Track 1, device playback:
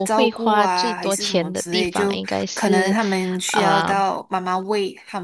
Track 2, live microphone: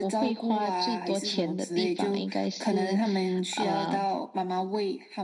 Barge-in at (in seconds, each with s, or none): none